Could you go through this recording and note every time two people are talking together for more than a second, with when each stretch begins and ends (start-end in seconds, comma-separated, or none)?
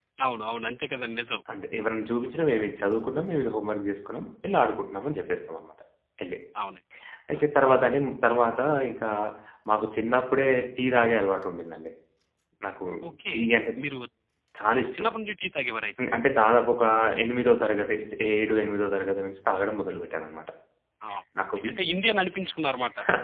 none